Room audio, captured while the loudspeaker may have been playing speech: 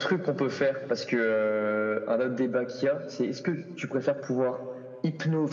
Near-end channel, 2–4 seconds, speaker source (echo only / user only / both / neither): echo only